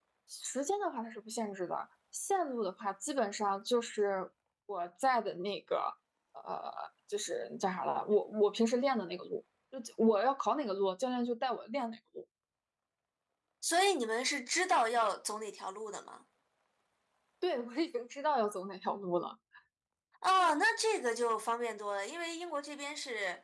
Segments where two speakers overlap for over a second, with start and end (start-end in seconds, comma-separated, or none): none